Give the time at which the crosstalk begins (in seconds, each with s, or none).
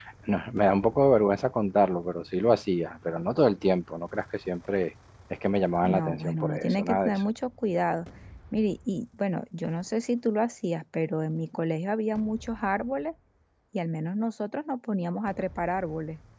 5.8 s